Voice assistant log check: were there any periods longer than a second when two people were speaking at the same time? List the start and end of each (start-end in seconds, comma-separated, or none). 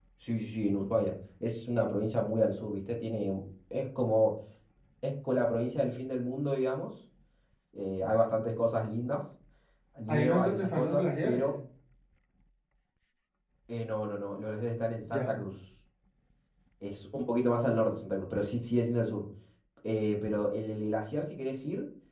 10.1-11.5